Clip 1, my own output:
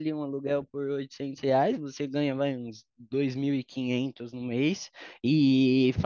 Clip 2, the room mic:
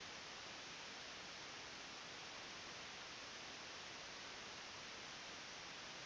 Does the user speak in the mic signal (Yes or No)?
No